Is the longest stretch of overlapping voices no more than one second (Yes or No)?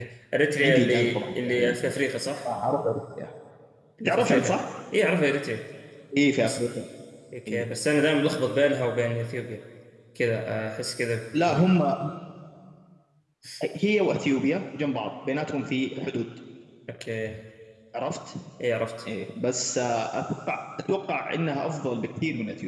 No